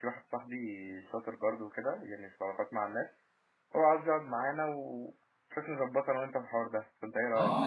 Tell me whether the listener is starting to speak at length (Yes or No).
Yes